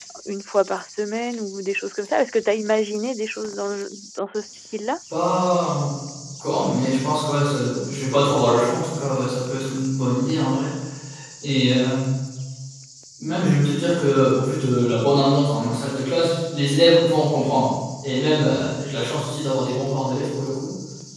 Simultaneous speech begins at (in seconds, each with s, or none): none